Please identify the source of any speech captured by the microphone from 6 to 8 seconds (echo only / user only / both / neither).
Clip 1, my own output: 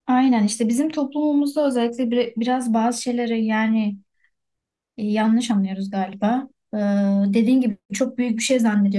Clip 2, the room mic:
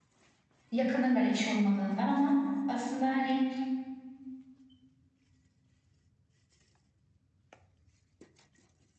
neither